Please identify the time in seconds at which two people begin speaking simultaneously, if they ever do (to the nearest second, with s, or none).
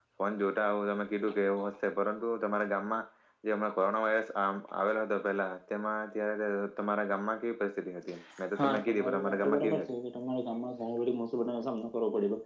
9 s